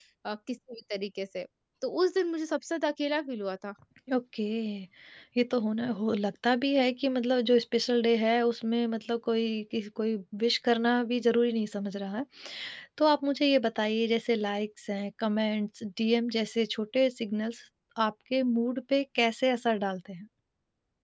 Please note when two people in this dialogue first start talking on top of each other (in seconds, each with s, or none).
none